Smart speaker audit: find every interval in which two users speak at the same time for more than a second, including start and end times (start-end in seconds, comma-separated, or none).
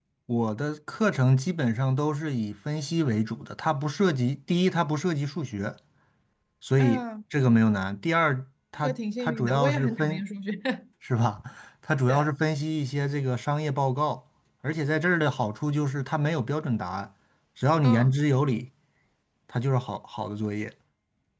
8.8-10.2